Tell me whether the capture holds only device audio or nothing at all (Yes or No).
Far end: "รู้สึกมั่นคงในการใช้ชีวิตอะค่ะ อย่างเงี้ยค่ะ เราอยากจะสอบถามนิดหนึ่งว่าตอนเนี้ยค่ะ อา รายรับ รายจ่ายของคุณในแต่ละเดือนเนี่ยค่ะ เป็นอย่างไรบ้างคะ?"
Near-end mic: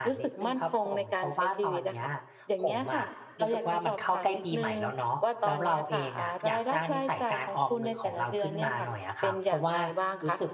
No